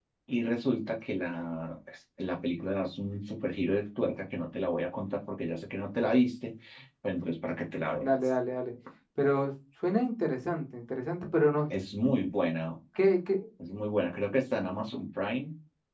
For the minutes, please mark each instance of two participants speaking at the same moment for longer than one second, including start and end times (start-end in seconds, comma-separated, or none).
none